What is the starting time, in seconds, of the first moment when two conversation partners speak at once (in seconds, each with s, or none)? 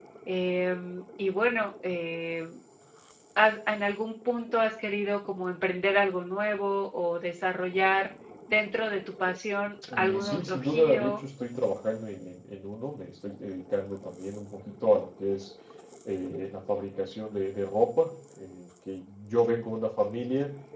9.8 s